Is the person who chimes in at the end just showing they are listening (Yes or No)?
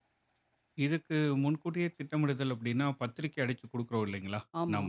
Yes